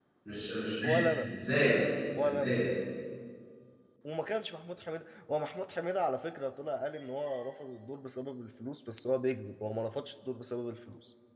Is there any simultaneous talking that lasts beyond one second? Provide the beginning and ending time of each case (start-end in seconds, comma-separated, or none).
none